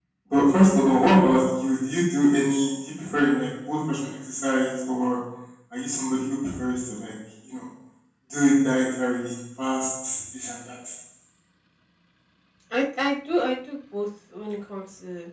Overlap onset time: none

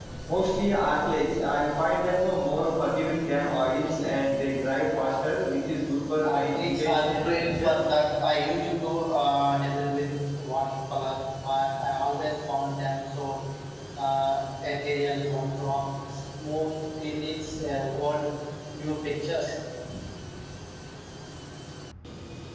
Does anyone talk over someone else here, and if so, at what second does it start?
6.2 s

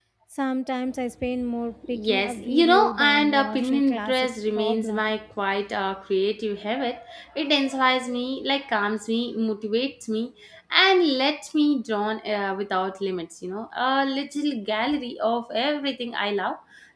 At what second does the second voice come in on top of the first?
1.8 s

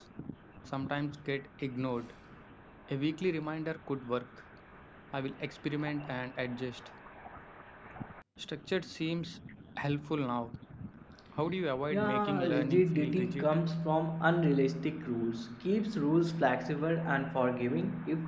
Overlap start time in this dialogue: 11.9 s

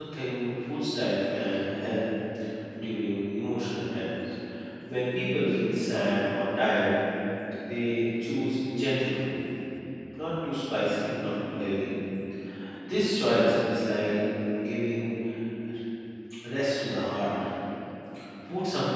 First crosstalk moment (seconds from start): none

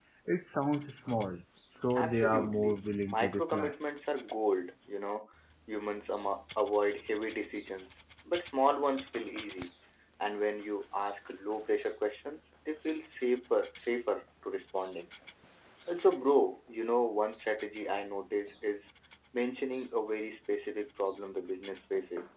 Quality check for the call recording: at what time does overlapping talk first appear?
1.9 s

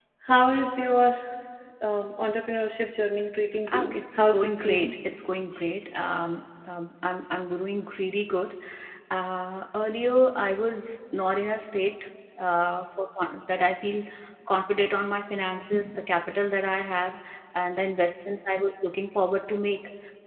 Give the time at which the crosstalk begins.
3.7 s

